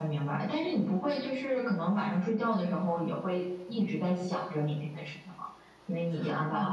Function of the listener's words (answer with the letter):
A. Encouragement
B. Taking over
B